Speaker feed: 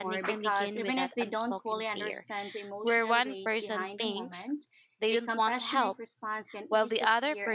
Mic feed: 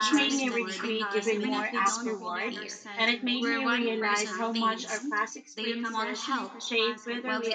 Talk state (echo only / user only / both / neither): both